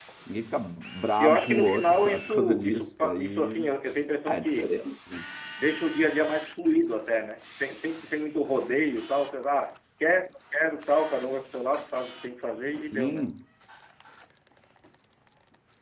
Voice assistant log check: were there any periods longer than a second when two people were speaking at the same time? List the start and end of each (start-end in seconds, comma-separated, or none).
1.2-3.6